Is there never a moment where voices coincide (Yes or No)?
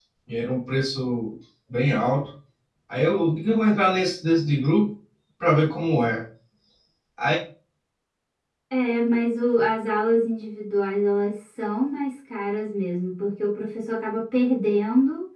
Yes